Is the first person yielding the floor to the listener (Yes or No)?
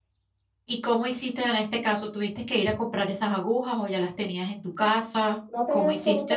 Yes